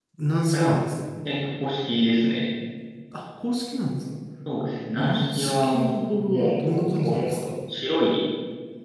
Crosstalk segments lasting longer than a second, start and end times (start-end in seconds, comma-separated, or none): 5.0-7.4